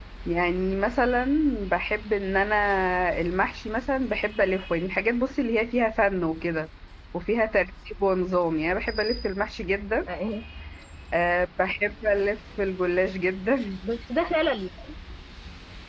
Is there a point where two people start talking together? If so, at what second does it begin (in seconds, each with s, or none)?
none